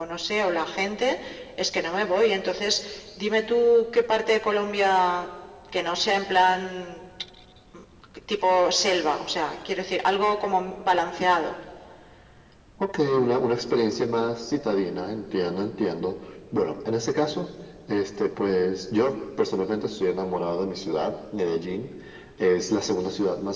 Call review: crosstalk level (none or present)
none